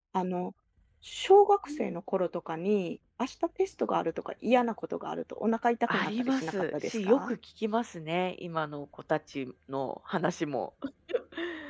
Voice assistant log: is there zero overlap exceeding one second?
No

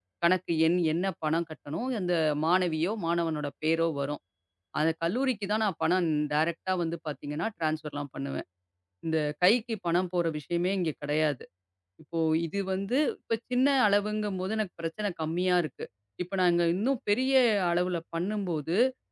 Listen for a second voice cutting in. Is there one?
No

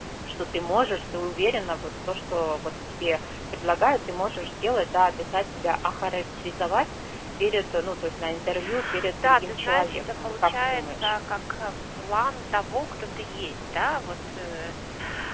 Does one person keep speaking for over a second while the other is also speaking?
Yes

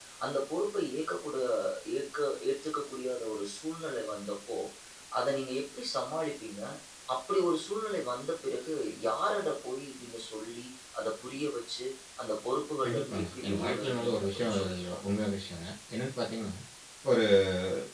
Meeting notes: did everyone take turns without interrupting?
No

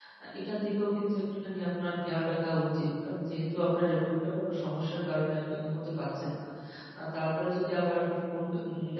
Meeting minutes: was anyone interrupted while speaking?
No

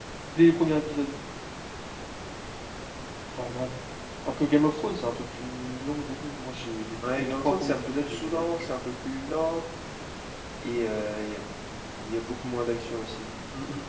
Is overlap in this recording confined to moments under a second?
No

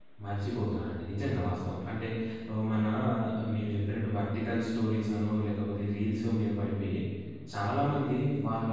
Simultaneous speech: No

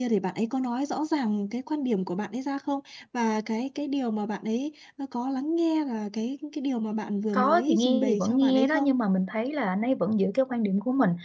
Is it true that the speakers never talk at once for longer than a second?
No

